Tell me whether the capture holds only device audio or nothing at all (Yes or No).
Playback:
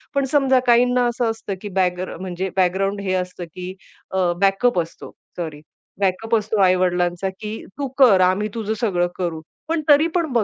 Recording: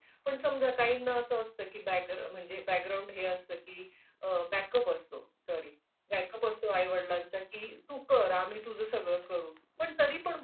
Yes